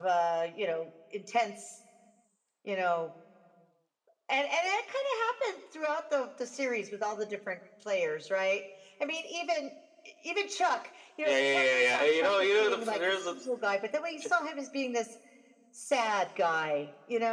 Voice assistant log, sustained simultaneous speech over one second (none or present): present